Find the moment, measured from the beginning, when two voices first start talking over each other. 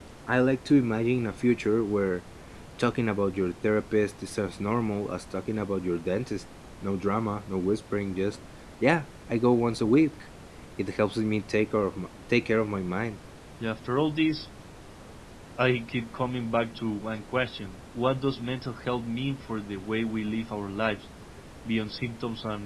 none

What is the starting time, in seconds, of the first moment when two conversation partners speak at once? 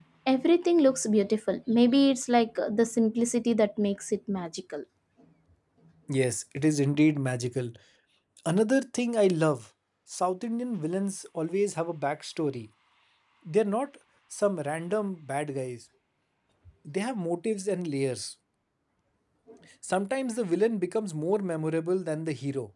none

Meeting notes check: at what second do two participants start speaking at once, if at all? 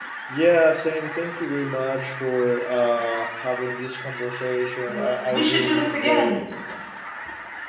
4.9 s

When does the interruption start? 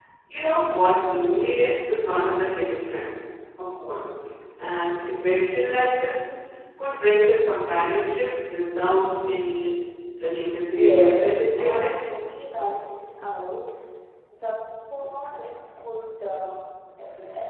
10.7 s

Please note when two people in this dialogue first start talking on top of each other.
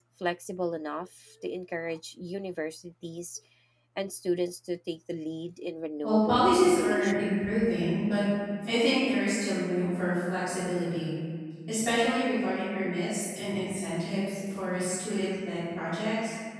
6.0 s

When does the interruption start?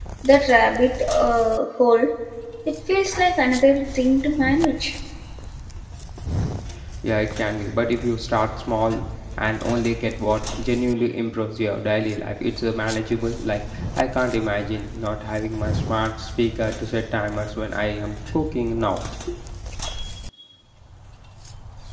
none

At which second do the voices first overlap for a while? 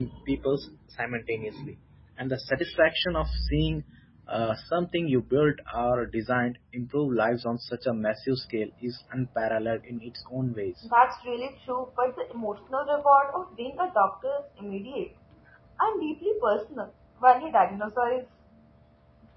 none

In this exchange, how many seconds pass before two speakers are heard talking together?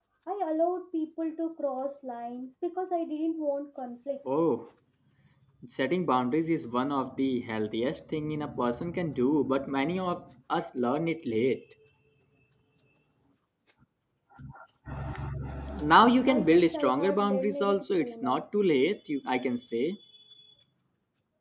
16.3 s

